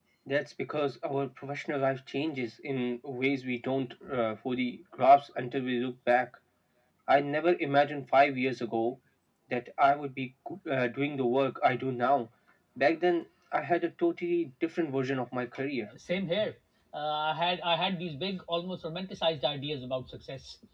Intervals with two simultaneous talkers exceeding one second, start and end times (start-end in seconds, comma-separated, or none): none